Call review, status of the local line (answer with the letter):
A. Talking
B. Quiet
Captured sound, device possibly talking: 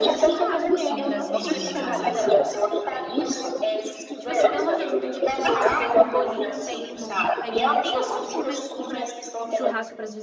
A